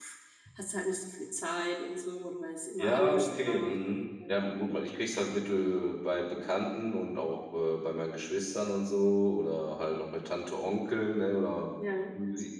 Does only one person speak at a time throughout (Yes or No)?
No